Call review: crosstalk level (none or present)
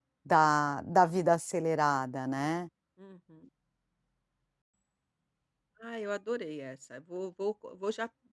none